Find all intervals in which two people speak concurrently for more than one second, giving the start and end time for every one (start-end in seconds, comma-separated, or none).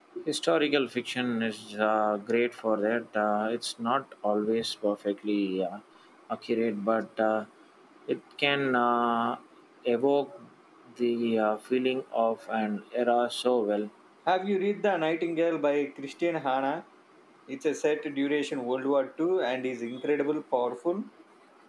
none